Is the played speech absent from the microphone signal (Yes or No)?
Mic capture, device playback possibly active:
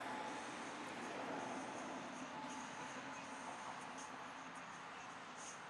Yes